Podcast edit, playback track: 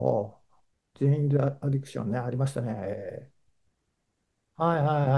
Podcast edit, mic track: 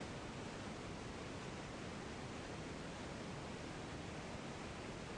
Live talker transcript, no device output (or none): none